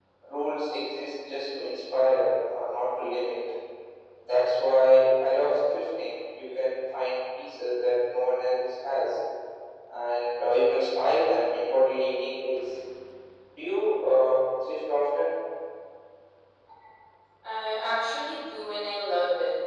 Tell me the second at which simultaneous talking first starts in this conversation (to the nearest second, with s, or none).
none